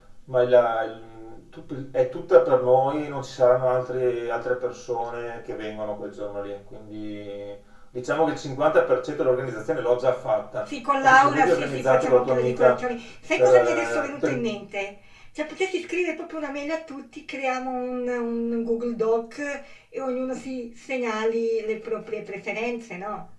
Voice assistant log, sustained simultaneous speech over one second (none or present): present